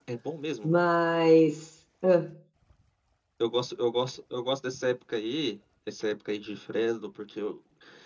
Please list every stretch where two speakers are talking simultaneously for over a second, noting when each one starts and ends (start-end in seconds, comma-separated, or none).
none